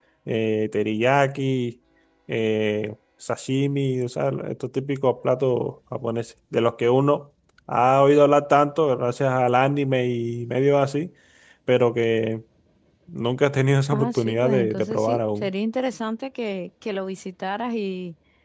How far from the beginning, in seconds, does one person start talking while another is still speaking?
13.9 s

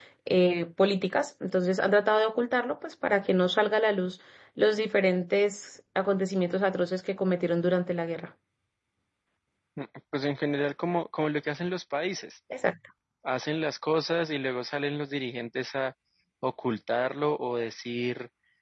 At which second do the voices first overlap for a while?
none

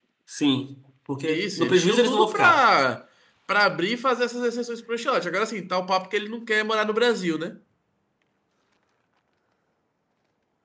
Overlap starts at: 1.2 s

